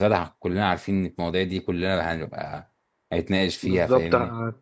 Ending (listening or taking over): taking over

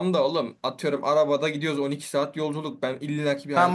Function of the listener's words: taking over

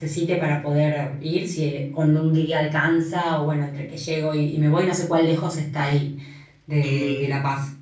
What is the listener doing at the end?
taking over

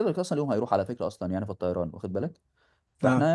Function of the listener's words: listening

